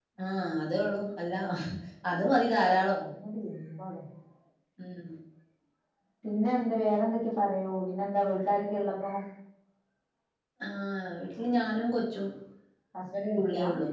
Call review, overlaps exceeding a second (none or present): none